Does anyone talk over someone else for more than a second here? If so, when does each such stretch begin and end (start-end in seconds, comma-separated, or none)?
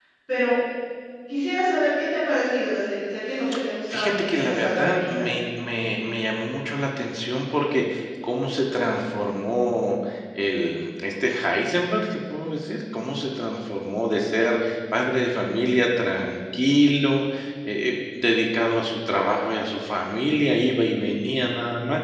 3.9-5.3